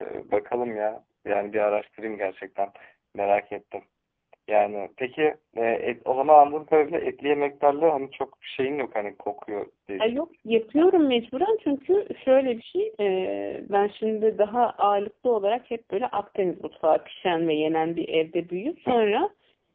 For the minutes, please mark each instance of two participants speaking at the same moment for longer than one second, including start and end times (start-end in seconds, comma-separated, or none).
none